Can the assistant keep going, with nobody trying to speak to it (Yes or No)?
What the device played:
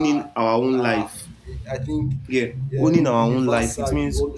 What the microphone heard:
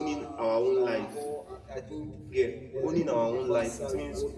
No